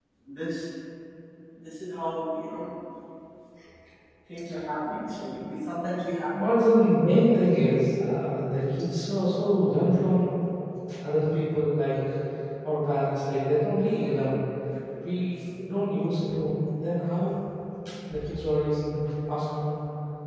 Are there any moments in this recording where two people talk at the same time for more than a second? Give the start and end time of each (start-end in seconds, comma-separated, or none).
none